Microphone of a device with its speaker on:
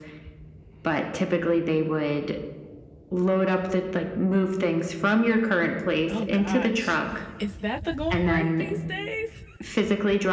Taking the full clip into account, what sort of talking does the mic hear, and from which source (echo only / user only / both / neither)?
both